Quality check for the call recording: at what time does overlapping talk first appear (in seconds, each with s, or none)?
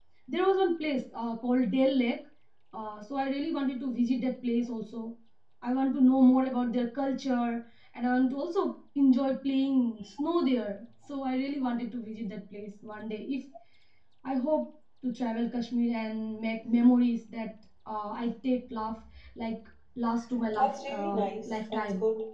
20.5 s